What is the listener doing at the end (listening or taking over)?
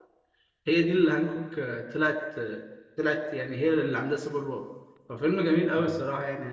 listening